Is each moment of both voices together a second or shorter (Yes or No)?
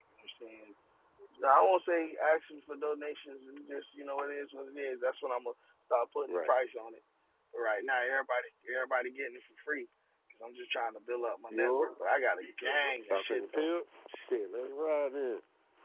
No